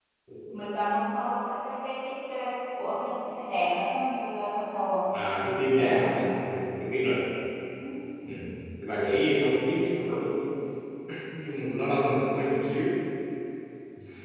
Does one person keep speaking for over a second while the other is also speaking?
No

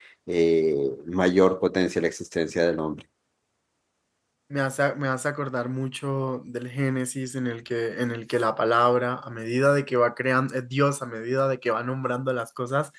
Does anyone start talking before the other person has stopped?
No

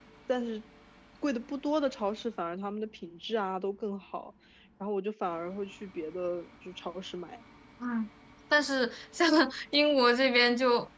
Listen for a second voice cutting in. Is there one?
No

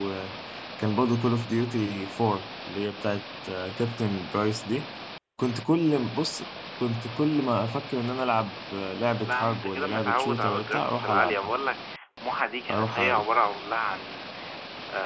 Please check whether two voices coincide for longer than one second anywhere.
Yes, from 9.2 s

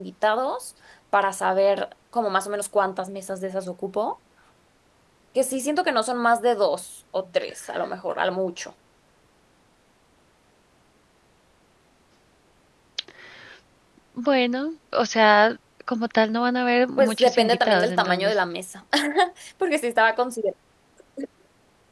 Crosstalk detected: Yes, from 17.0 s

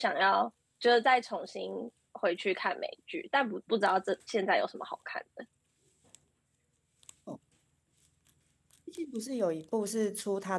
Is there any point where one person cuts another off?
No

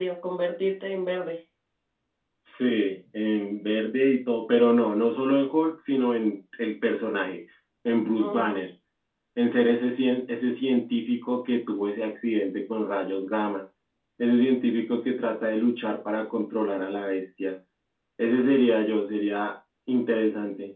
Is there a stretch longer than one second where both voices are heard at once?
No

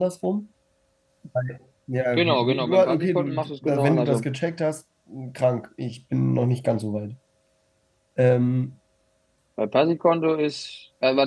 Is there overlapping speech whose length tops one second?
Yes, from 2.2 s

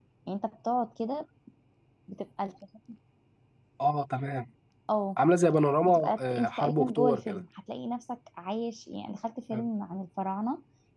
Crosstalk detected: Yes, from 5.8 s

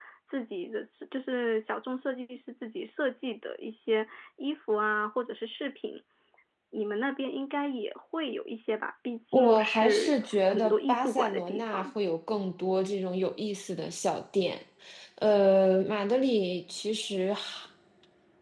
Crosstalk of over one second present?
Yes, from 9.3 s

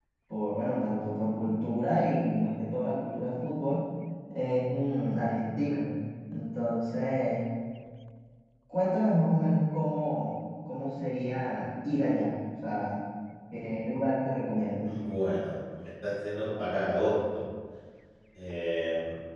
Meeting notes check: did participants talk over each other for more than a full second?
No

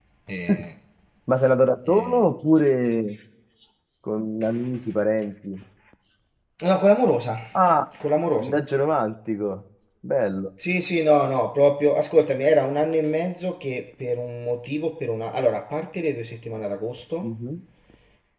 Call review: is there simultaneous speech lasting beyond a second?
No

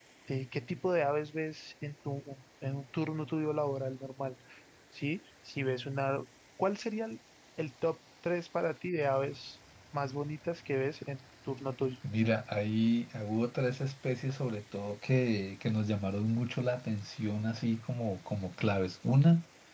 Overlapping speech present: No

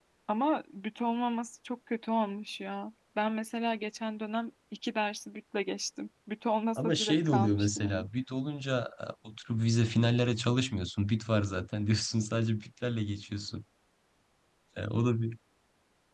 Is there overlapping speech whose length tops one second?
Yes, from 6.8 s

